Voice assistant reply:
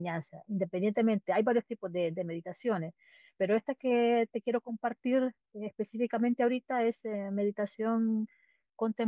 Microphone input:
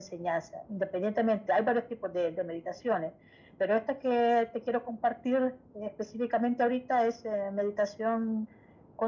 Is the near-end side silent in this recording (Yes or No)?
Yes